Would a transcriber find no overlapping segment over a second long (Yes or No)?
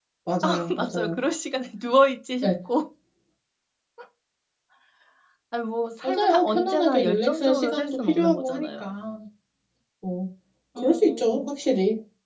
No